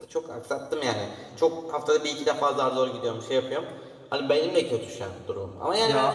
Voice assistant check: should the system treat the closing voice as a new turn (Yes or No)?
No